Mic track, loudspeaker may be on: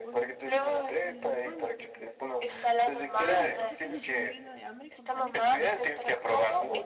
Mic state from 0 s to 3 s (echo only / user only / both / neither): both